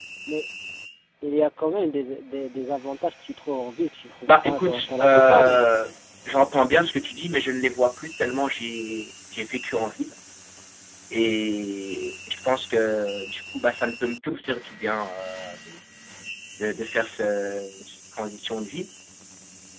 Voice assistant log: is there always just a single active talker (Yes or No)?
No